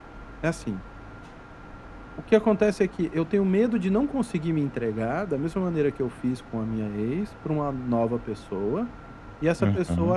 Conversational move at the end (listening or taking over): listening